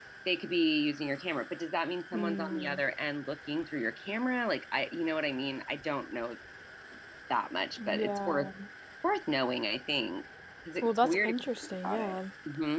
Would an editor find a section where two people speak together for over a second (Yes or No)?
Yes